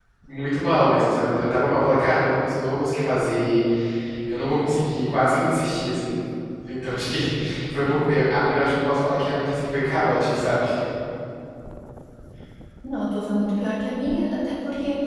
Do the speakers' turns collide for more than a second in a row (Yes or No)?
No